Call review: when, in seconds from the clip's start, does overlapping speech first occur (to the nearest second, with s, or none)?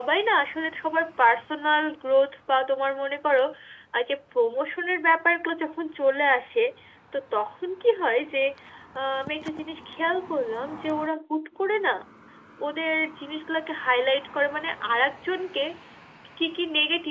none